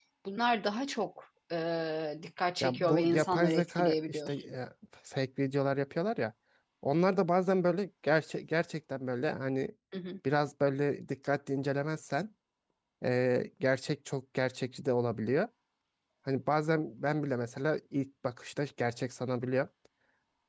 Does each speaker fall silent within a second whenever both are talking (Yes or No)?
No